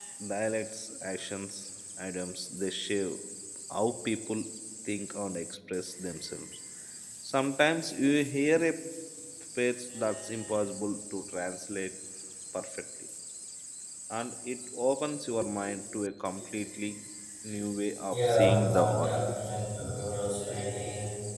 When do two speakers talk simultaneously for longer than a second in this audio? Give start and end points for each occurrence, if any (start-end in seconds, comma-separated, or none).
18.1-19.3